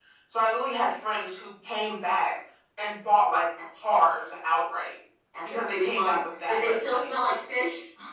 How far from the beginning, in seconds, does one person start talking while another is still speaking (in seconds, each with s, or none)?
5.4 s